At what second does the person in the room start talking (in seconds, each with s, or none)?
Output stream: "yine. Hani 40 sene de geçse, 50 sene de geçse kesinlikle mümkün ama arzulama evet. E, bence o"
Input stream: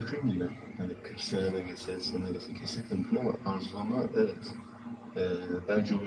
none